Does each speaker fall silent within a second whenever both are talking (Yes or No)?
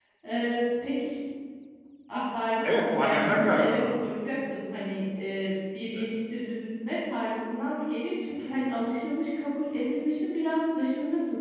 No